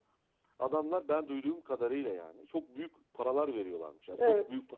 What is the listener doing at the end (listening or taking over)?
listening